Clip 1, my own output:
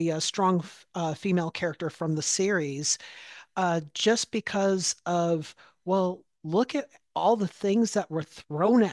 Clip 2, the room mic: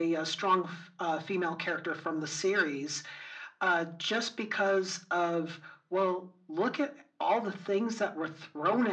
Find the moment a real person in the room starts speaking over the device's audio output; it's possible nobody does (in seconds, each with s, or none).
none